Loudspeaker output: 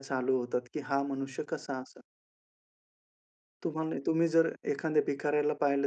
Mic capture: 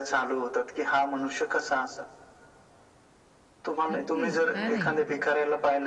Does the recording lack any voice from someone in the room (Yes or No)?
No